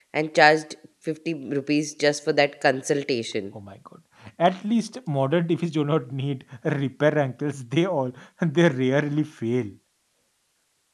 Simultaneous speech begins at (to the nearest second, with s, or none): none